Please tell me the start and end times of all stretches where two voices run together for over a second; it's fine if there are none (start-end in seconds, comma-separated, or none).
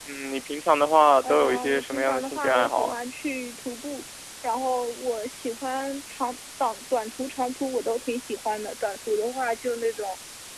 1.2-3.0